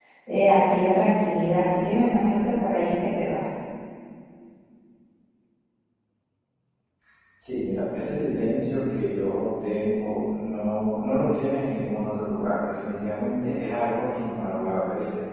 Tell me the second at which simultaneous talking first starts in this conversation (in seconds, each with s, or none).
none